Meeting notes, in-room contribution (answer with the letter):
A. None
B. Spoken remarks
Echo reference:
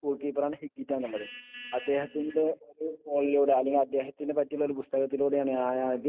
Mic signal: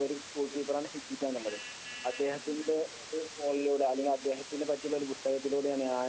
A